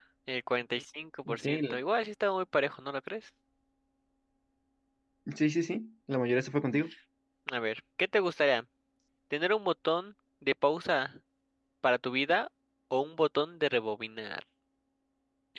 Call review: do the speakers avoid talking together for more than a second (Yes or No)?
Yes